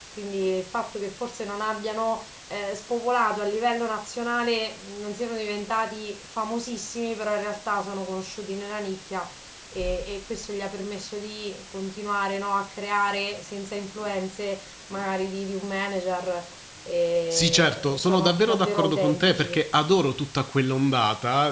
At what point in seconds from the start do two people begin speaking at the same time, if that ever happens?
17.3 s

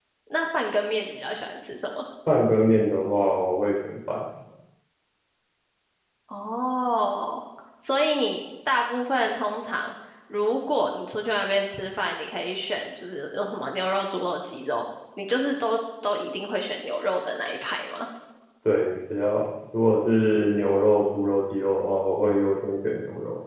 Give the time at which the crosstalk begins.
none

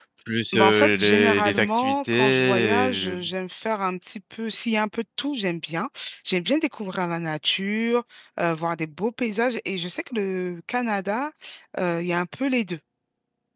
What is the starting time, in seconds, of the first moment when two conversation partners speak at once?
0.5 s

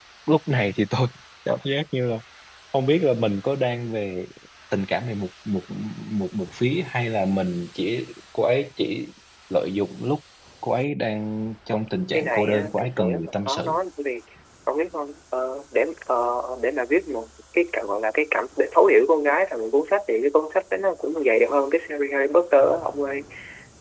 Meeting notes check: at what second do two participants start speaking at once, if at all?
12.1 s

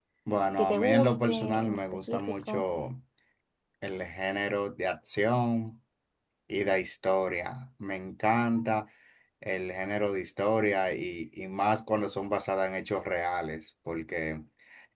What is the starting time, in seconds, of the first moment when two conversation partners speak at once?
0.6 s

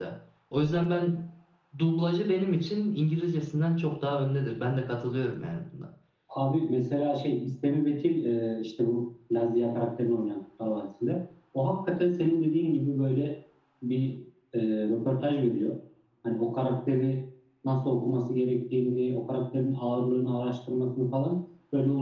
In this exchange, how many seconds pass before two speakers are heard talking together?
none

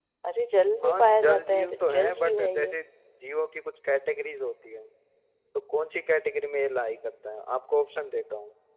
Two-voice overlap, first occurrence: 0.8 s

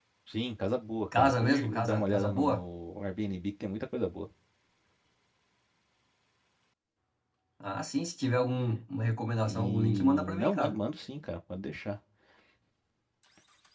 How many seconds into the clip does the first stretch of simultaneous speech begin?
1.2 s

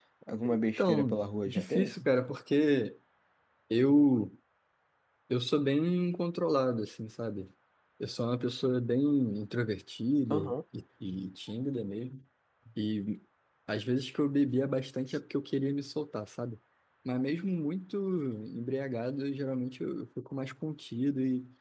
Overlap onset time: 0.5 s

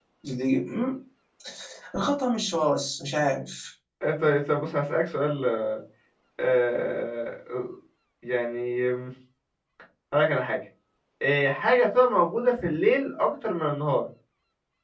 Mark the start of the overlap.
none

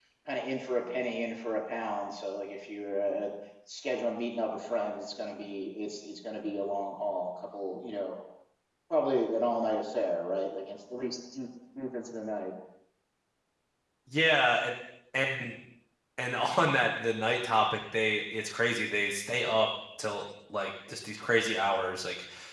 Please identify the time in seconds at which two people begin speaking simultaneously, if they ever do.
none

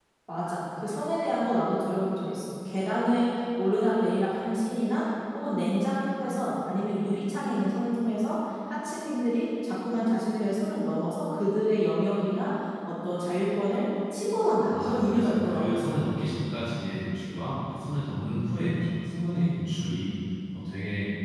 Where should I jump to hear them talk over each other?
14.7 s

